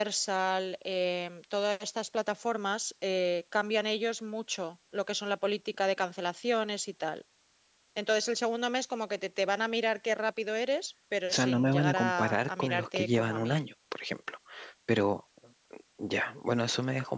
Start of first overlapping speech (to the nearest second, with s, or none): 11 s